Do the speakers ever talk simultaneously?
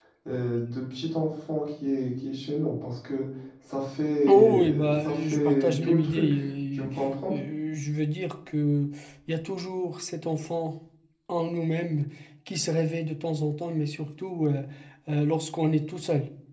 Yes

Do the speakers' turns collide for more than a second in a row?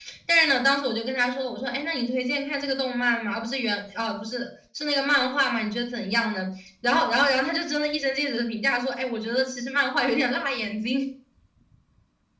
No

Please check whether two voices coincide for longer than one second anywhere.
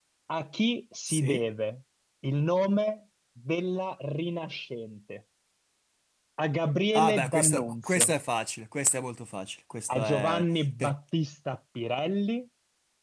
Yes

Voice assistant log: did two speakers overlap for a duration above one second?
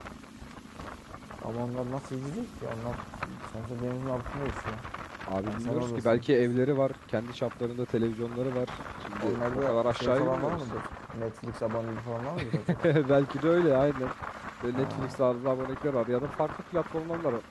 Yes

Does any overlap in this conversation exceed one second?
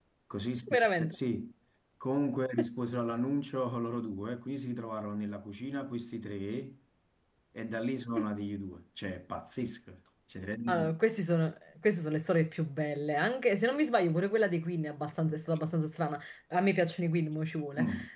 No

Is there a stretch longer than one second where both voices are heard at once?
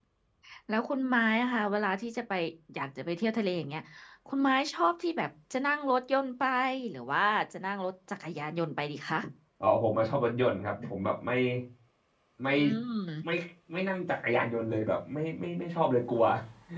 No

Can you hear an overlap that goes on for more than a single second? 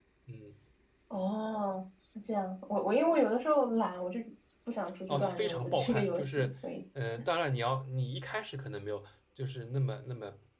Yes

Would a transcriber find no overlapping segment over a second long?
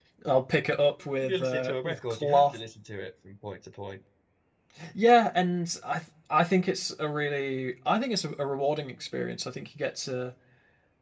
No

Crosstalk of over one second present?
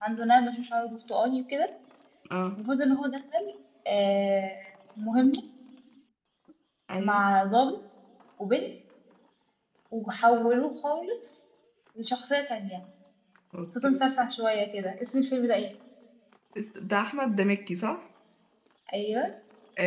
No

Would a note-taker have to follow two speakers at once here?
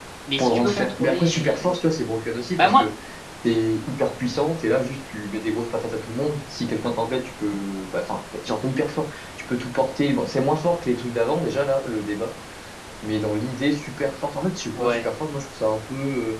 Yes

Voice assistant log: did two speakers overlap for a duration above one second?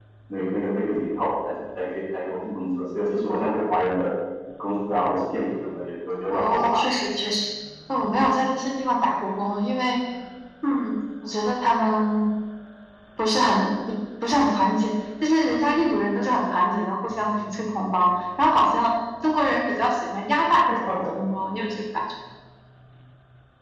No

